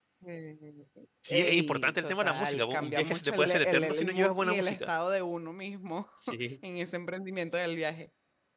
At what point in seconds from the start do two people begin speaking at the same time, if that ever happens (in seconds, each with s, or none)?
1.3 s